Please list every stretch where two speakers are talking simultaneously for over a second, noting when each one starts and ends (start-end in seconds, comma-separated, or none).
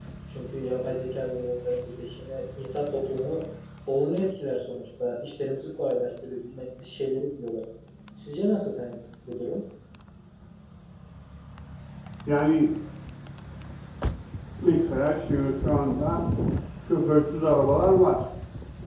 none